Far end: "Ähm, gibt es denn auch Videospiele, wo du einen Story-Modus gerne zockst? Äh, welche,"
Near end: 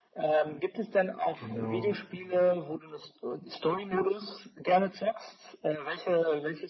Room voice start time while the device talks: 1.3 s

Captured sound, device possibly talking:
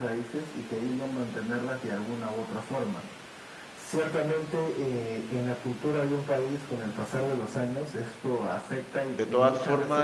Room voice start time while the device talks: 9.1 s

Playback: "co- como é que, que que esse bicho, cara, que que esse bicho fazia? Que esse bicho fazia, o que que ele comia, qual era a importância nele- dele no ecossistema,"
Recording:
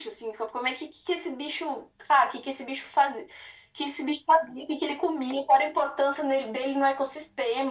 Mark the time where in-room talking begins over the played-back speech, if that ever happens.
none

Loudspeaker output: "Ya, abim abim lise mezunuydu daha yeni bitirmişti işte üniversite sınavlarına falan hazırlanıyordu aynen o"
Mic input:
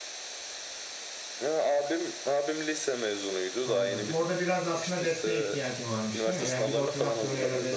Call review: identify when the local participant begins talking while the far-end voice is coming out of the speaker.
3.6 s

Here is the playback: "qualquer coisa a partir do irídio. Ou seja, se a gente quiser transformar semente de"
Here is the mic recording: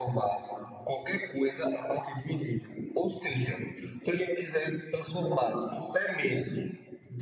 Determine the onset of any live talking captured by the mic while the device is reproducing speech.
none

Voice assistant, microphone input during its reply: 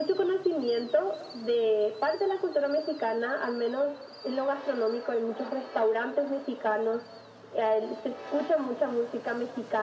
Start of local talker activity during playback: none

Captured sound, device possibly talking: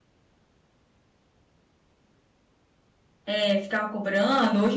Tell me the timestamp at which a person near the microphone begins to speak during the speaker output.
3.2 s

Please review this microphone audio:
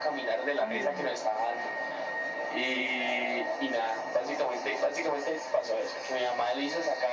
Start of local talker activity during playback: 0.6 s

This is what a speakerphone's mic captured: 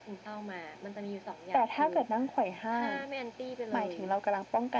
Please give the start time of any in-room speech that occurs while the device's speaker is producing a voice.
none

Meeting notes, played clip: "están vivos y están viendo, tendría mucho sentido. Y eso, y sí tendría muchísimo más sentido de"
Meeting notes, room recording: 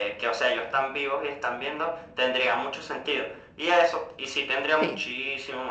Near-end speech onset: 4.8 s

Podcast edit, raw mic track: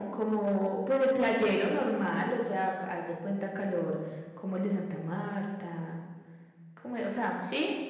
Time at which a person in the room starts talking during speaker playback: none

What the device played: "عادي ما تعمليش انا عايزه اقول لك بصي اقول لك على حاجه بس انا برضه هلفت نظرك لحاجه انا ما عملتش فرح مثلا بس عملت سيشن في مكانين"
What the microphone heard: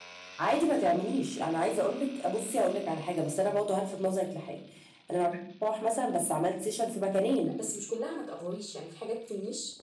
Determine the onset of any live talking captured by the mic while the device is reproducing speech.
7.5 s

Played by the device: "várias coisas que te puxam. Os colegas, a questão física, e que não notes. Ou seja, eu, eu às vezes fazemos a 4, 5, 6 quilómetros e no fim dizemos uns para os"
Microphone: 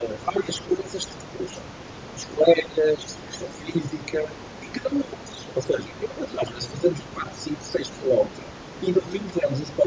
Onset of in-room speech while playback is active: none

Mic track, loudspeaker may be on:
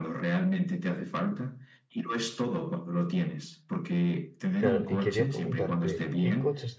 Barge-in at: 4.6 s

